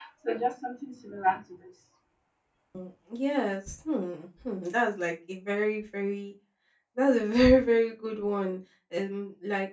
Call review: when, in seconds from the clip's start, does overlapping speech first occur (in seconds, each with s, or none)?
none